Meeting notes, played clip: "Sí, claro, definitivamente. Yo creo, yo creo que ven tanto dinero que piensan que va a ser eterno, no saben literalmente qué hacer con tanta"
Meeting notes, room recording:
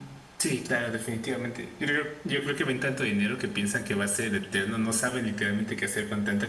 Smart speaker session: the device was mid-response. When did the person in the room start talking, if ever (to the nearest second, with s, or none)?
none